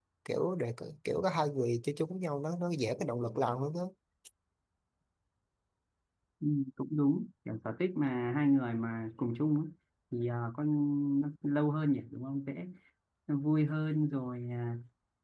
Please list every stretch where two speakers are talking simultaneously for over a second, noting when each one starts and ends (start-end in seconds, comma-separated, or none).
none